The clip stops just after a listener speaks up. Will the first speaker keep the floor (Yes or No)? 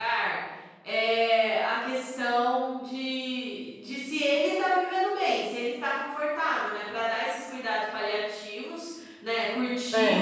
Yes